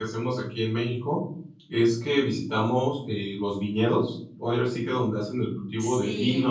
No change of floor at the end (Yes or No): Yes